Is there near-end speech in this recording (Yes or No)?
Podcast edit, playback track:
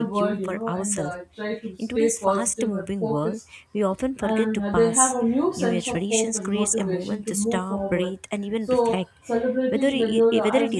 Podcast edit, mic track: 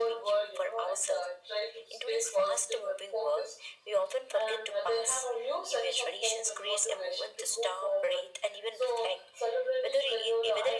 No